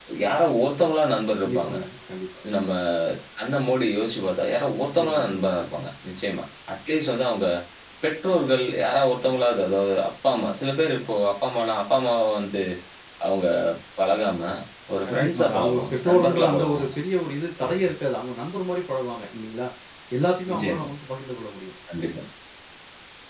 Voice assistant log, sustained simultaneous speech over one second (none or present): present